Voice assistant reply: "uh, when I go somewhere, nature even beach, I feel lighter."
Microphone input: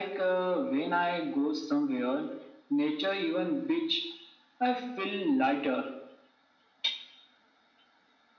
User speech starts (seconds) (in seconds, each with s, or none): none